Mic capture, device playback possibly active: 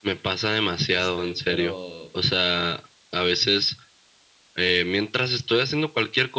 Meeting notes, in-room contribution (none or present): present